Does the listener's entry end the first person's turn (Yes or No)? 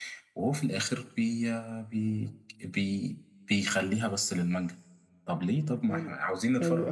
Yes